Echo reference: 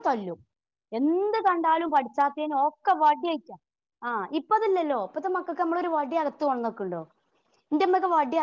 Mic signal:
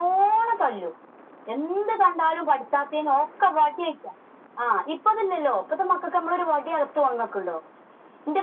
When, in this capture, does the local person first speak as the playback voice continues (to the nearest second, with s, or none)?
none